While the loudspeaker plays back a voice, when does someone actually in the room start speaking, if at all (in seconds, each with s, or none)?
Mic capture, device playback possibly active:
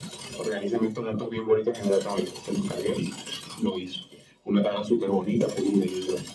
none